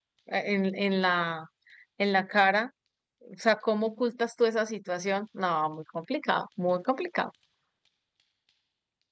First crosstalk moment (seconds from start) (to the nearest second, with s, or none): none